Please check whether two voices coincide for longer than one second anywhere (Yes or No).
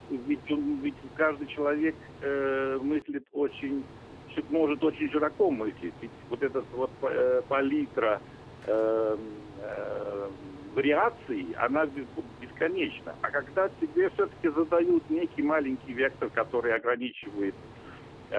No